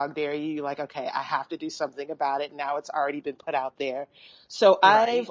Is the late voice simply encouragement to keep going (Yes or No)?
Yes